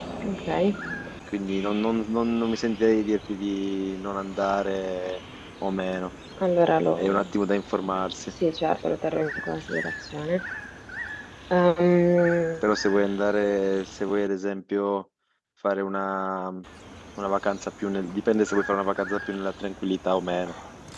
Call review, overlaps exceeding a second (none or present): none